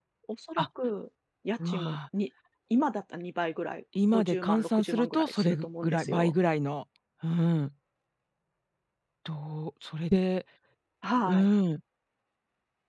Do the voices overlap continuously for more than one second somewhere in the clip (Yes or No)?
Yes